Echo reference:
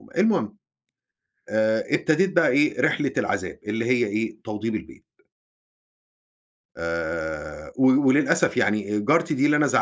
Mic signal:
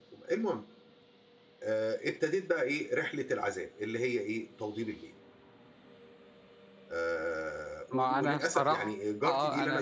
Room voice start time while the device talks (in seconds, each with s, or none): 7.9 s